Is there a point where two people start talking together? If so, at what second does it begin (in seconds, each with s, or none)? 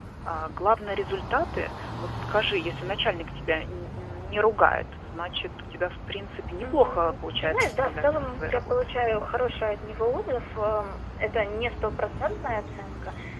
6.6 s